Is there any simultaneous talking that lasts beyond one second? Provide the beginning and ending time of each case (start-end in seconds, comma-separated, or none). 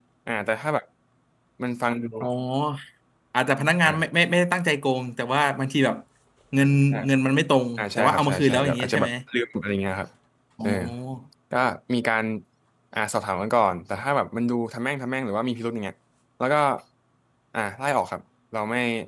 7.8-9.1